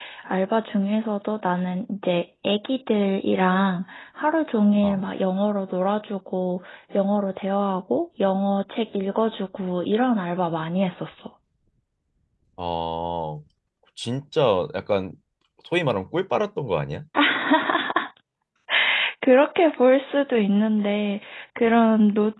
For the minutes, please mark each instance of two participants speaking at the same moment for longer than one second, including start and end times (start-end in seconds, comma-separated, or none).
none